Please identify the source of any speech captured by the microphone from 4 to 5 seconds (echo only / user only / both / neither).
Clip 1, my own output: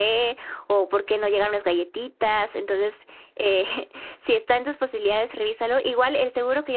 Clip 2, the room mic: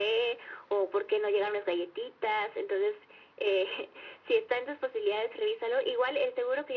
echo only